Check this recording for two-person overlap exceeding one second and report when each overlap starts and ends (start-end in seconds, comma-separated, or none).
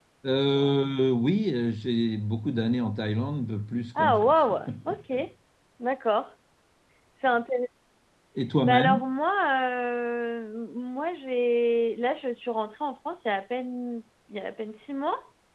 none